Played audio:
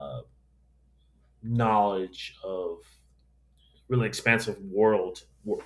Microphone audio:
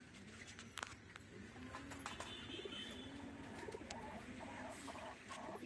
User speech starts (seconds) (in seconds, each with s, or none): none